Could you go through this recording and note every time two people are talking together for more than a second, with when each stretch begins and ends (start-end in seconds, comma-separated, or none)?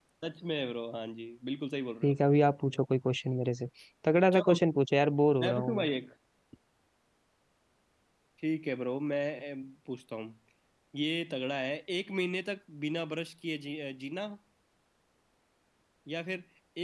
none